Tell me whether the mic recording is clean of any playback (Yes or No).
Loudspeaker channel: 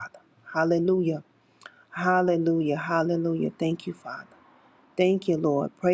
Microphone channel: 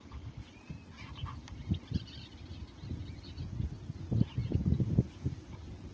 Yes